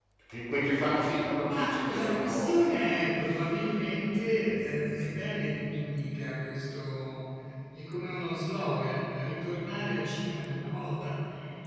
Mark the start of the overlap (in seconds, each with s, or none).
1.4 s